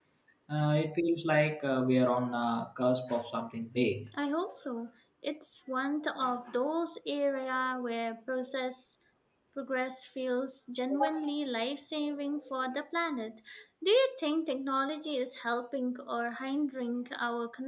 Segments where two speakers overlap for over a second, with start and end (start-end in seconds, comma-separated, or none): none